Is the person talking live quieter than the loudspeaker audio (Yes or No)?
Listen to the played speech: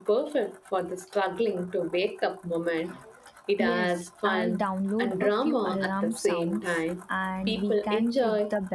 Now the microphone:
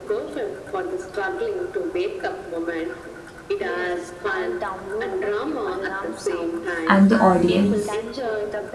No